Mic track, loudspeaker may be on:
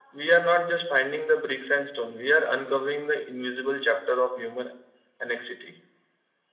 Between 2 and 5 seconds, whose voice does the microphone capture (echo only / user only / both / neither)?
echo only